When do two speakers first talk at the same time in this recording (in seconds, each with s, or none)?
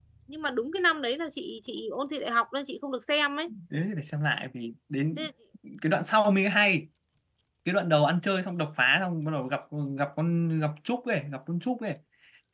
none